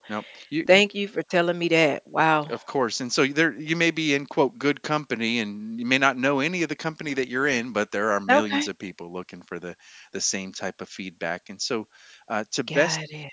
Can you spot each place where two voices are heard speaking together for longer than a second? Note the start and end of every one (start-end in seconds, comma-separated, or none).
none